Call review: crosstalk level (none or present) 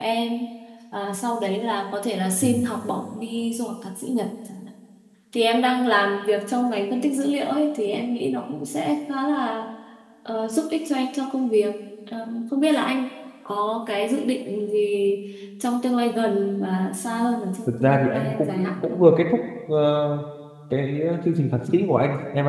present